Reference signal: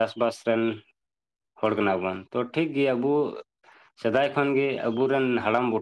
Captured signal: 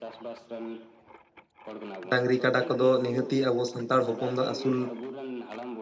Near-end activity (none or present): present